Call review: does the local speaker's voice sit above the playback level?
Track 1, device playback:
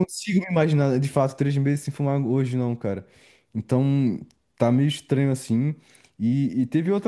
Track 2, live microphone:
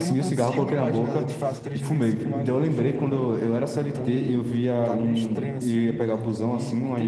Yes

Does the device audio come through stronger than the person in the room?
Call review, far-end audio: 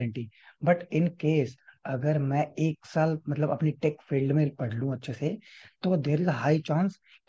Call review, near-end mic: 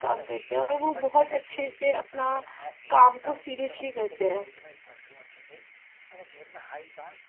No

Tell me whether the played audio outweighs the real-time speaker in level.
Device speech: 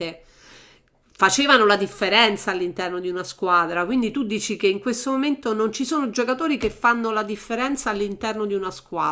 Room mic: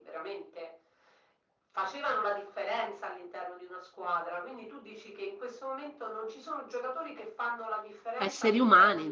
No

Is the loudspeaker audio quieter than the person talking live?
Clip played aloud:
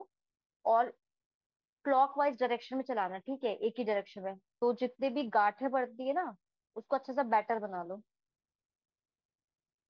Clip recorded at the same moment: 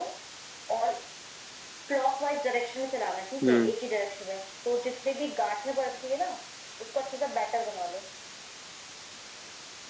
Yes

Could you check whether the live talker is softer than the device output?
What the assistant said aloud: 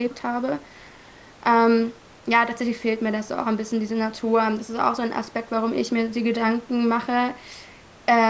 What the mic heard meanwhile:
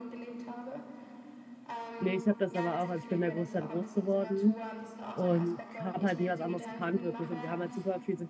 No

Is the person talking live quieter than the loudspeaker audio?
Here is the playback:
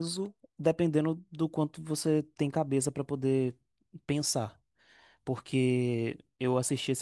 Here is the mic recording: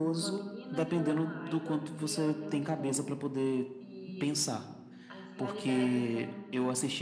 Yes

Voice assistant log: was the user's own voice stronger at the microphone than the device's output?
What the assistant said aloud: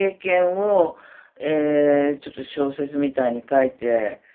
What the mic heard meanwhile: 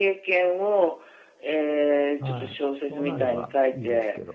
No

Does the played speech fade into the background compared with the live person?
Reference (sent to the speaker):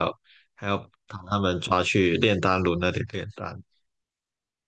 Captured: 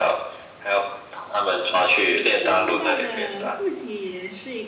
No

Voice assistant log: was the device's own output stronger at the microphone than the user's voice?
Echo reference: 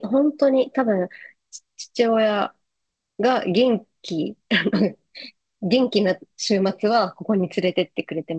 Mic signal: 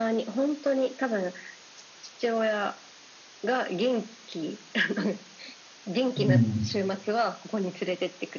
No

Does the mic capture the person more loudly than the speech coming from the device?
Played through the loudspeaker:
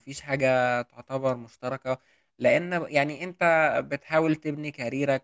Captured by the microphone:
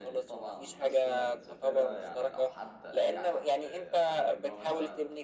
No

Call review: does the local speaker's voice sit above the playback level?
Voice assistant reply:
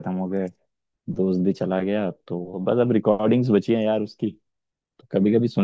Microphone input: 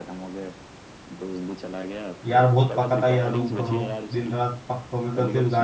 Yes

